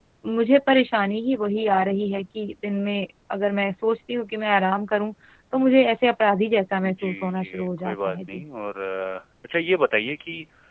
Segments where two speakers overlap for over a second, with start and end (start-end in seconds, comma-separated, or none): 6.8-8.4